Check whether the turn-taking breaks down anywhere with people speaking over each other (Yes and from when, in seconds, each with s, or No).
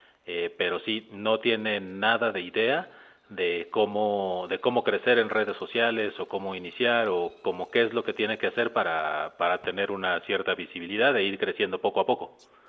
No